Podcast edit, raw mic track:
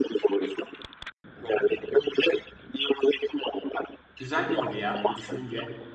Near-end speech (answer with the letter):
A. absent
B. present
B